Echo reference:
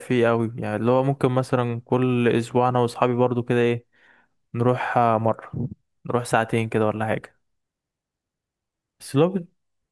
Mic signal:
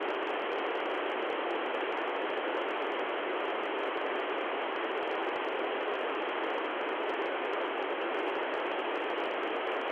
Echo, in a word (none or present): none